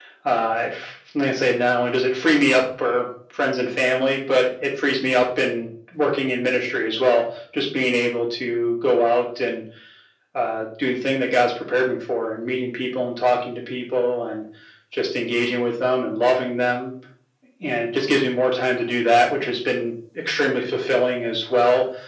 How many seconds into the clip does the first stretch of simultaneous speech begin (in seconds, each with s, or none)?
none